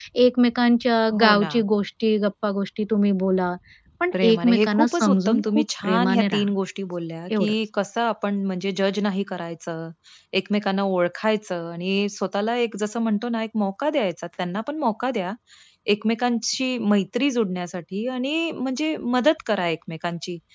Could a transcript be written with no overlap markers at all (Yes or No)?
No